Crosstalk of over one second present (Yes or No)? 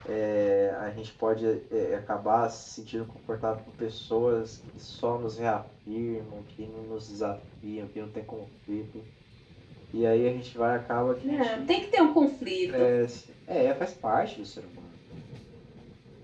No